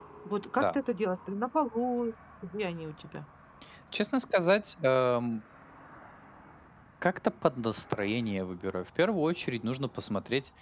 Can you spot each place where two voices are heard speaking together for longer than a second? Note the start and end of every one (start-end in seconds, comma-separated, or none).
none